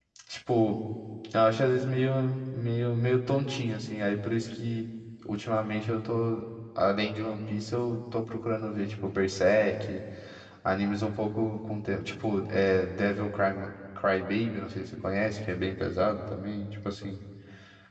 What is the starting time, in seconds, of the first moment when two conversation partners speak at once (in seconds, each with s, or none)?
none